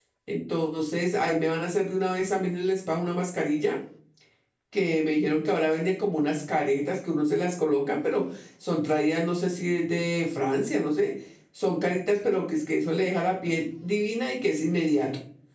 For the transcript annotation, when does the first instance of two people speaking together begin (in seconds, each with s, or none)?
none